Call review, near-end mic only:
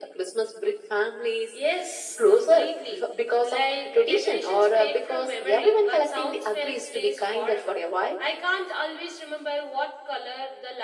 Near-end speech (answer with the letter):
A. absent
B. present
A